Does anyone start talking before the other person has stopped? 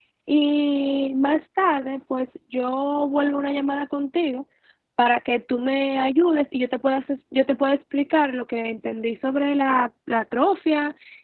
No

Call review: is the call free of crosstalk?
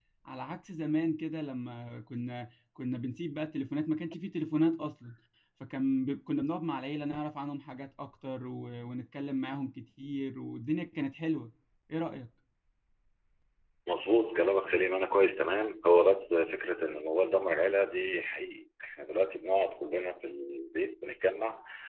Yes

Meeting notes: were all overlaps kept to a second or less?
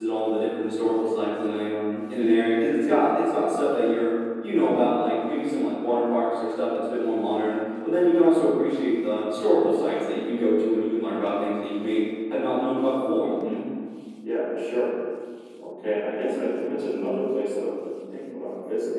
Yes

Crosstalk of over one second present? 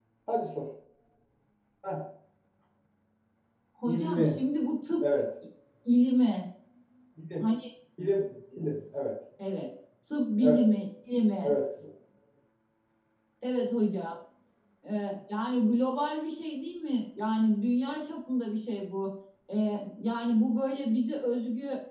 No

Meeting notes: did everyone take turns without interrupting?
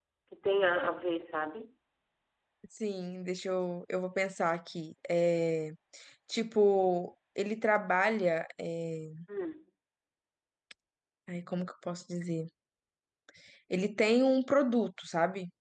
Yes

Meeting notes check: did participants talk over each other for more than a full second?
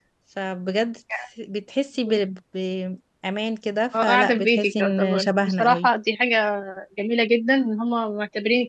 Yes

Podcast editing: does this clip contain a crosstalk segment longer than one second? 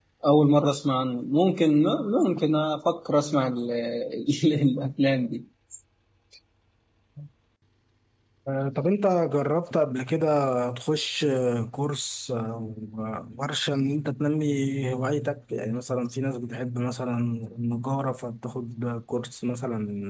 No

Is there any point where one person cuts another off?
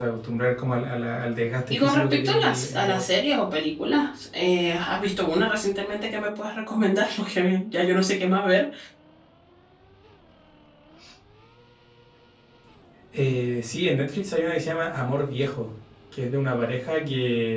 Yes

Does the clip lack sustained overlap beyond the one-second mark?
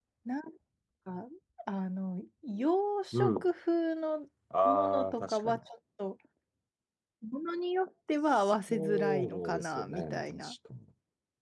No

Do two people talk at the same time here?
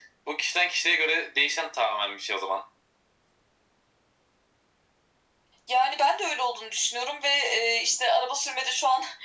No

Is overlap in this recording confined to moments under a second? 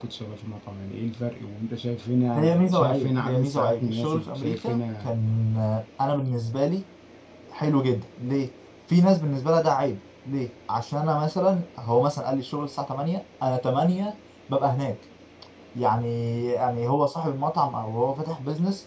No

